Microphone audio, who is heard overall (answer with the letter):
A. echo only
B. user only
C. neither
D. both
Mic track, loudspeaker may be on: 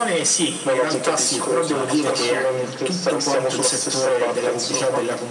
D